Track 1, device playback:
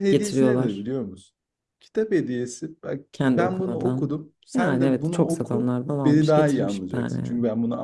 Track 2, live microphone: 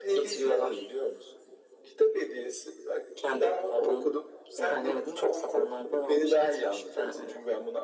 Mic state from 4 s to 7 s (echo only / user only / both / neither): echo only